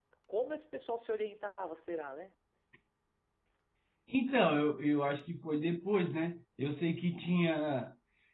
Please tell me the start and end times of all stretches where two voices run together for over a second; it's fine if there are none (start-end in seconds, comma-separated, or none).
none